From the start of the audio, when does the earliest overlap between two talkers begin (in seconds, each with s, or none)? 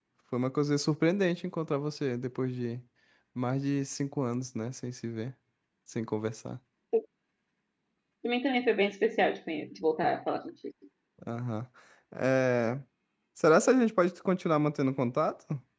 none